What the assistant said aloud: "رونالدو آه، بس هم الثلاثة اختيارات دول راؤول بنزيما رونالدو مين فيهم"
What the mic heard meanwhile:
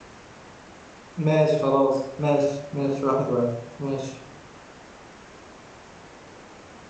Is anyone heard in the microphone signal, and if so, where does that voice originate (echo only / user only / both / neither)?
user only